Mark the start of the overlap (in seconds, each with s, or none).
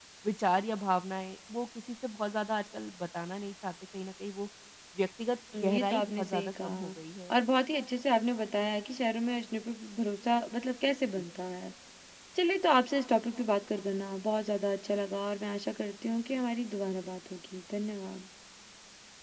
5.6 s